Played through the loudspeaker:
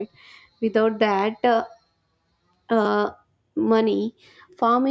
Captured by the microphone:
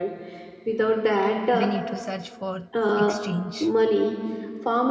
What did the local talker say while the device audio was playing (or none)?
we need to search for exchange.